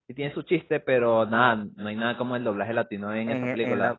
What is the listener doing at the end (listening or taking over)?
taking over